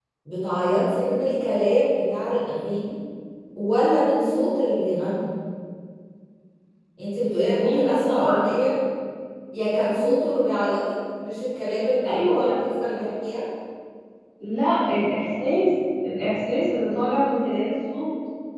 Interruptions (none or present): present